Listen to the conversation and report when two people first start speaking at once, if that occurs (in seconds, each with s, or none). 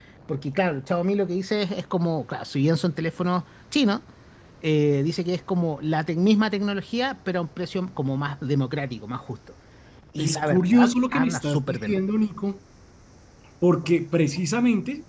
10.2 s